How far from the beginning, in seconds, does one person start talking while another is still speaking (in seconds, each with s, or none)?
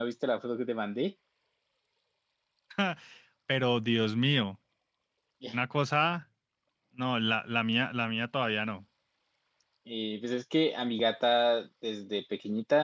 none